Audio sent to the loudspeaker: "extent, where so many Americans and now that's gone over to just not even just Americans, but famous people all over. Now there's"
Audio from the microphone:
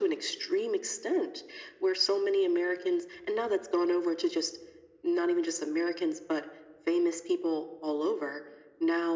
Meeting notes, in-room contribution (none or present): none